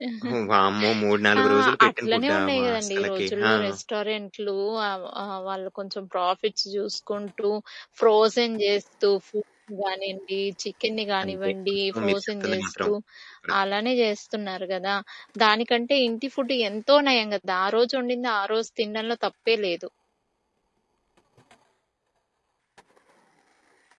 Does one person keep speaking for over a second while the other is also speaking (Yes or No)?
Yes